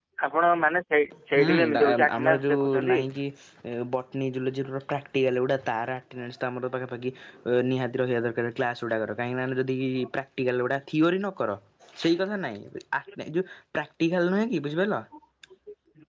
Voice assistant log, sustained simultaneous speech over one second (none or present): present